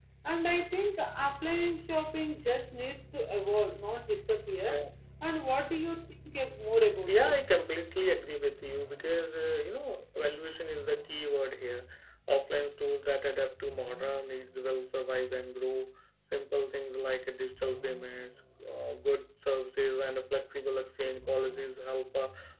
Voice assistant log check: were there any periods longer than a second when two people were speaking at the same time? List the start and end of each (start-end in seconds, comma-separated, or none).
none